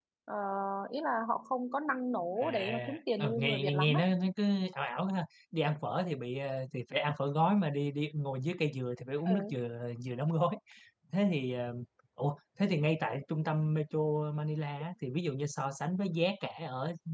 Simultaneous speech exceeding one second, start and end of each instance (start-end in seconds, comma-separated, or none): 2.4-4.0